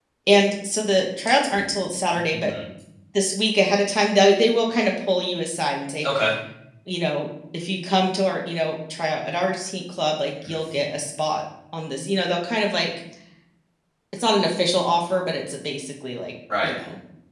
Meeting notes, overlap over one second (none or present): none